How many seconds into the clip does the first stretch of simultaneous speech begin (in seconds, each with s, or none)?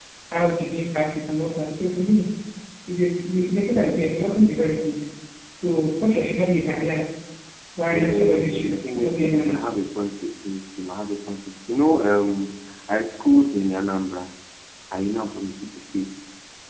7.9 s